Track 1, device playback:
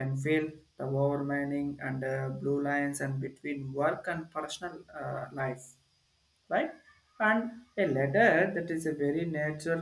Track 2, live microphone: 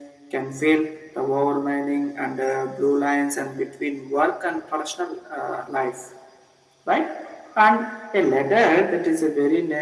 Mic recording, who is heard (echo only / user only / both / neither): echo only